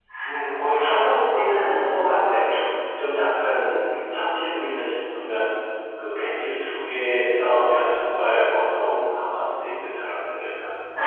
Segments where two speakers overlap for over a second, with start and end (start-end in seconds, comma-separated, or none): 0.6-2.5